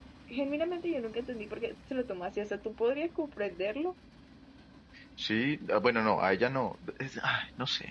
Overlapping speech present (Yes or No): No